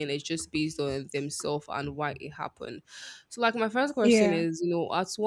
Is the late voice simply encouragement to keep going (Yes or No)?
Yes